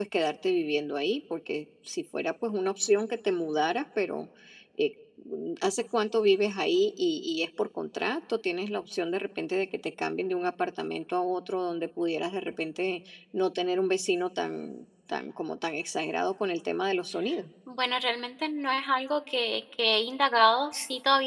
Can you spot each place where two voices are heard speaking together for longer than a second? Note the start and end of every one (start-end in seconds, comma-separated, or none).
none